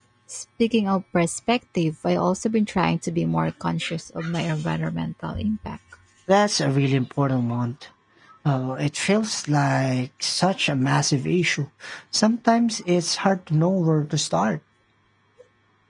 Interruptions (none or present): none